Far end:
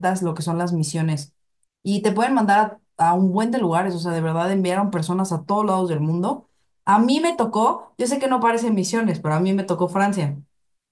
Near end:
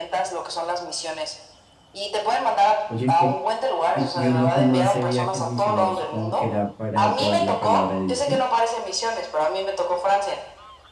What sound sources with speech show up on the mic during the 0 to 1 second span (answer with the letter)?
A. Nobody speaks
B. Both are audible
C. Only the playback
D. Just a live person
C